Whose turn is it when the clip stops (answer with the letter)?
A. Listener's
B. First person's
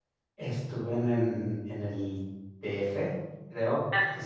B